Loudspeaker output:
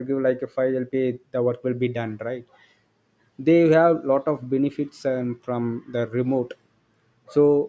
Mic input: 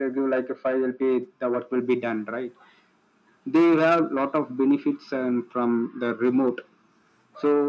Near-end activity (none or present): none